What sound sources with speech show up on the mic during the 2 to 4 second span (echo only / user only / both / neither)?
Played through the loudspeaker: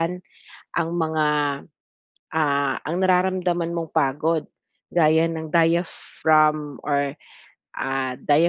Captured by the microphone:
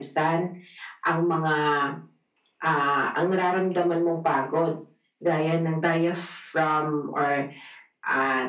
echo only